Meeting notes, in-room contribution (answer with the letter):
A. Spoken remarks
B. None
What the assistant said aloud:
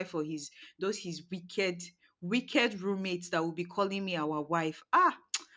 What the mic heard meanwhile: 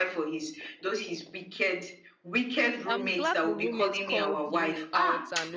A